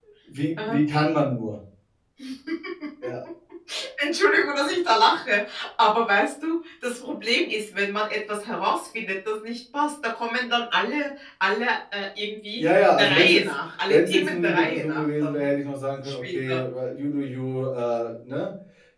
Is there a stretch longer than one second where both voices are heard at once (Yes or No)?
Yes